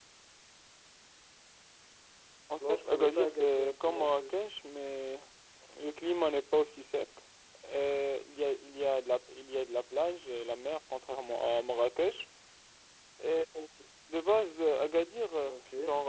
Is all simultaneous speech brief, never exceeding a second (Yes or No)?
No